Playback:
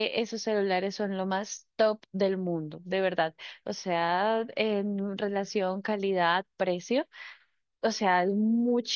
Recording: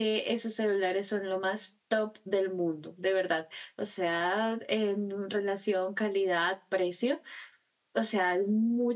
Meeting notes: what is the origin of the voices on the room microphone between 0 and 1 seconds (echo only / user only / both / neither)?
echo only